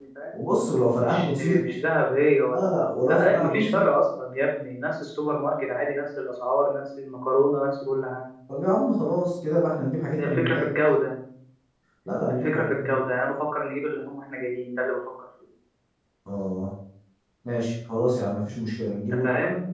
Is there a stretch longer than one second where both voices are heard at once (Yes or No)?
Yes